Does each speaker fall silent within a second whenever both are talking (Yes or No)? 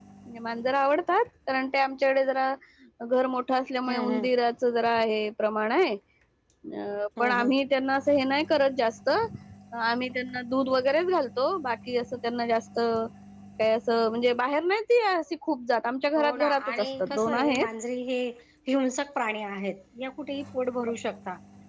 No